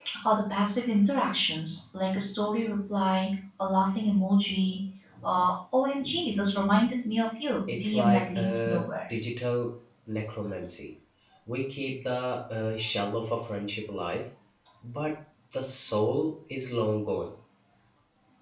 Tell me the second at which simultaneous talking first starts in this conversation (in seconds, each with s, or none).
7.7 s